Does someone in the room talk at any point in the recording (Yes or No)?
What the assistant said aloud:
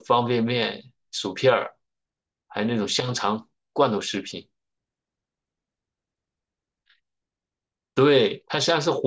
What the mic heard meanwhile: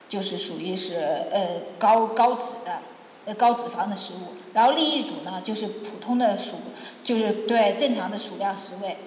Yes